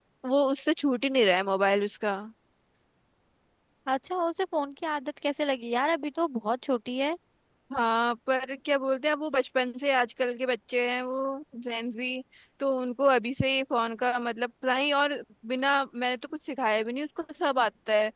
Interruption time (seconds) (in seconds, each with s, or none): none